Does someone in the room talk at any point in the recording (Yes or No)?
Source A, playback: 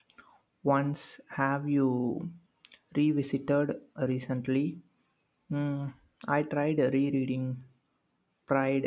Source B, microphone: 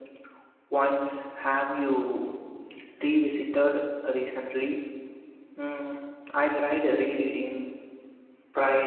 No